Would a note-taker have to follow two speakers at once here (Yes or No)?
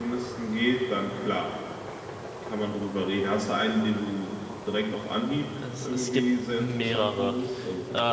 Yes